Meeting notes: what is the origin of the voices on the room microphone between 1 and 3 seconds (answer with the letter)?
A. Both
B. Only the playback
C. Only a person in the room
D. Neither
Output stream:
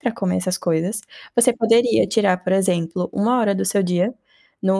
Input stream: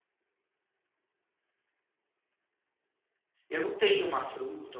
D